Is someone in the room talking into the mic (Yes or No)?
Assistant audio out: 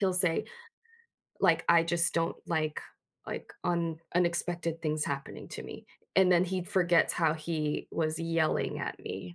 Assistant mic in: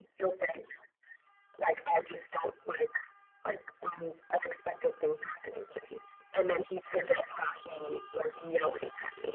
No